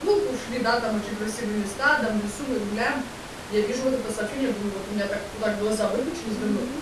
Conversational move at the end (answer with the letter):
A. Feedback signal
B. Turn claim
B